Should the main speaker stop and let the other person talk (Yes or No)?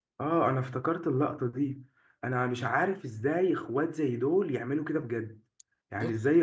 No